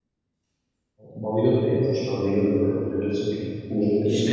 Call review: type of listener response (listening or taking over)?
taking over